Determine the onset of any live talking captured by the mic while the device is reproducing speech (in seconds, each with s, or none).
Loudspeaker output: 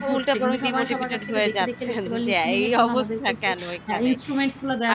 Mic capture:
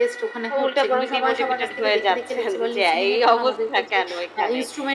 none